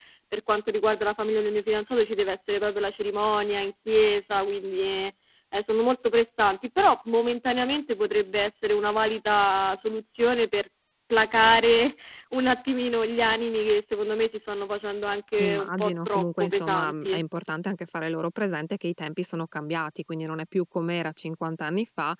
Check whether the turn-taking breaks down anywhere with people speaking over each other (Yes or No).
Yes